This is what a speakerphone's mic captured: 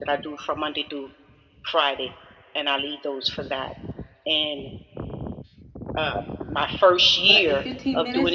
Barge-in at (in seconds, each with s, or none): 7.2 s